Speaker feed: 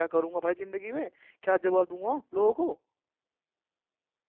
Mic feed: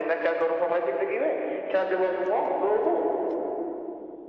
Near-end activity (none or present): none